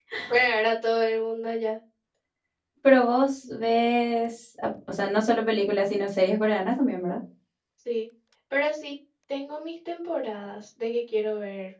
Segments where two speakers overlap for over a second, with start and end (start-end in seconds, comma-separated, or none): none